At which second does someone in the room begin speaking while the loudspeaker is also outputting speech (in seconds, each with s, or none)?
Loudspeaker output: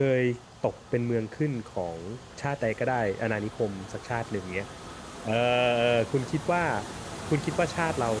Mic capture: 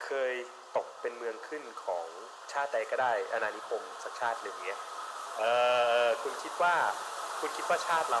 none